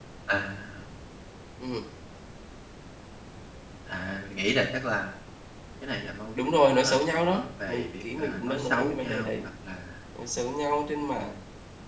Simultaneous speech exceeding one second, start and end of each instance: 6.4-9.4

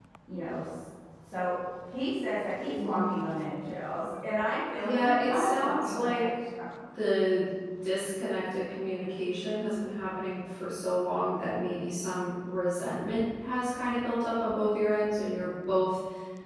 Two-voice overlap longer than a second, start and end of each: 4.8-6.2

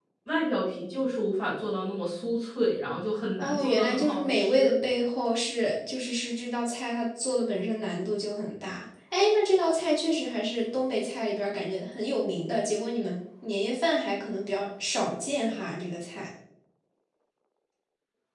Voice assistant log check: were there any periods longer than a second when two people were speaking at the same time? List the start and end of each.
3.4-4.7

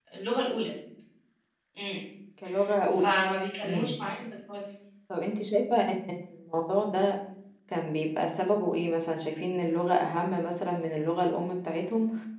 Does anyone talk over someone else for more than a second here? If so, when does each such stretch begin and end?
none

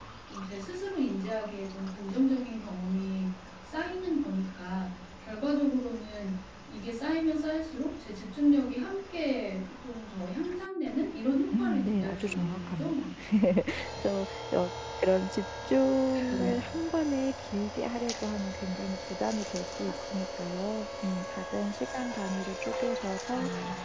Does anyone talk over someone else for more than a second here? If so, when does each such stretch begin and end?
11.6-13.1

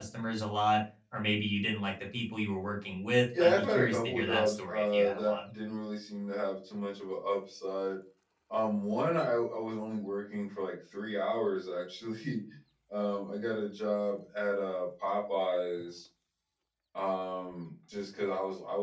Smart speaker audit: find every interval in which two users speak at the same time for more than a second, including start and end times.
3.4-5.4

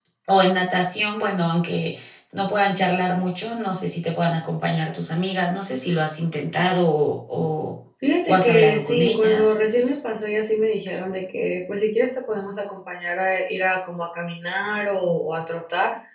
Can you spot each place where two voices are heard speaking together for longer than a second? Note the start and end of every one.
8.3-9.6

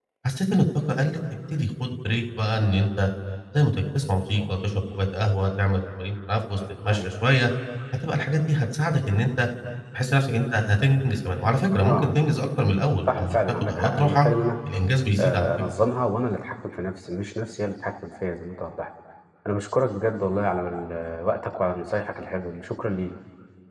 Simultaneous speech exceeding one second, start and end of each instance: 13.1-14.3

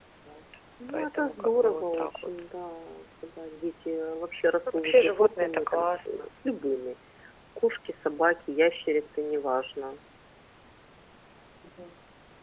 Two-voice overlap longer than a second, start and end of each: 0.9-2.3, 4.7-6.3

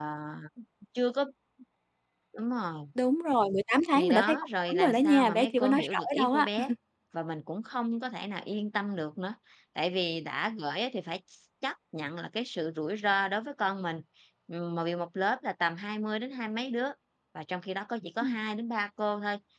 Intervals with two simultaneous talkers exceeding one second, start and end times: 4.0-6.5

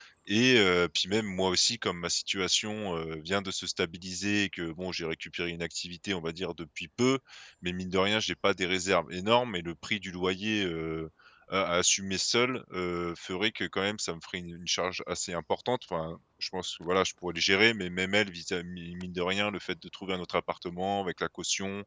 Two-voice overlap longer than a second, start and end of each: none

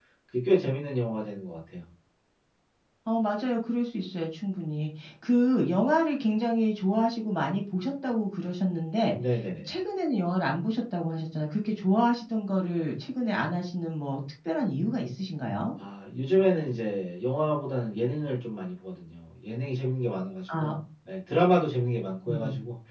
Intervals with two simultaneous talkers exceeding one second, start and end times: none

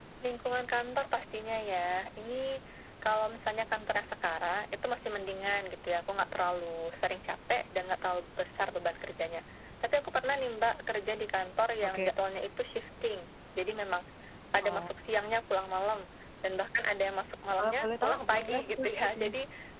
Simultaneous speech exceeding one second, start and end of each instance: 17.6-19.3

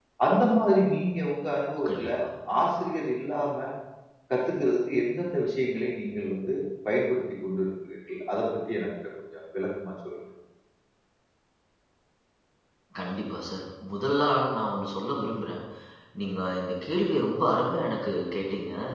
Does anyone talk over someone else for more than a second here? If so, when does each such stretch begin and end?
none

